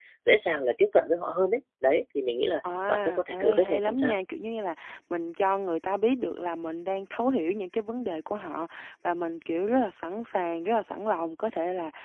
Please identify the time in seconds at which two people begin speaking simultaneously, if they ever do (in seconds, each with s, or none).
2.9 s